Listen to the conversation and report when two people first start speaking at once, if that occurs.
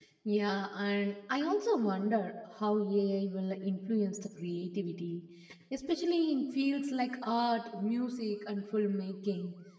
none

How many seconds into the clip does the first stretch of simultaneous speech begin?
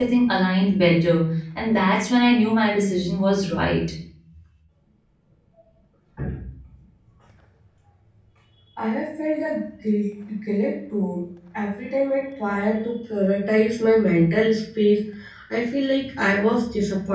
none

